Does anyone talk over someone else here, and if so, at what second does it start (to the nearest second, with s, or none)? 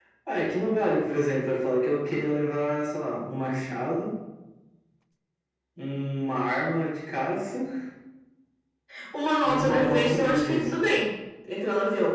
9 s